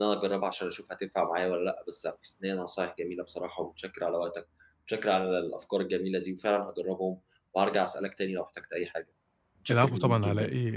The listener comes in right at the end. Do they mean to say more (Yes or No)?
Yes